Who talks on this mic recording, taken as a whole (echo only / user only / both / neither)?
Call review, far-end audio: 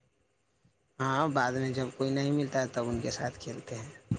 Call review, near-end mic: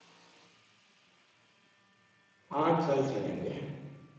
user only